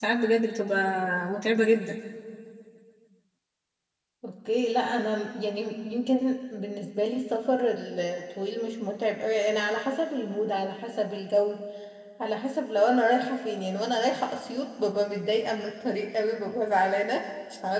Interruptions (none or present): none